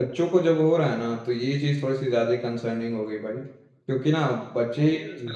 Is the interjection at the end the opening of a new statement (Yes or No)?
No